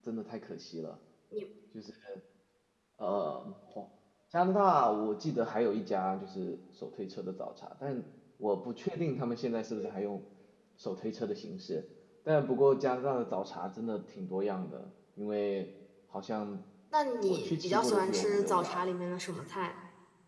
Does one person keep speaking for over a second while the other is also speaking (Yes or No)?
Yes